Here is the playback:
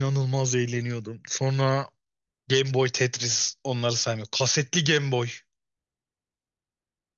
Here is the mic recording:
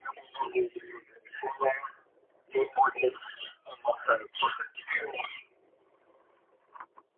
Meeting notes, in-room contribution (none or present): none